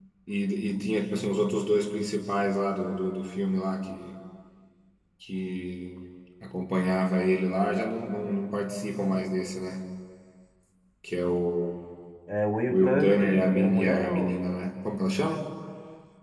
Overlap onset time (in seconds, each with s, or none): 12.7 s